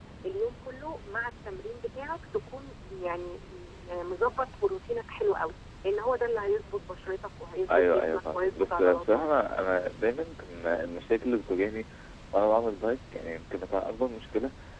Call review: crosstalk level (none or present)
present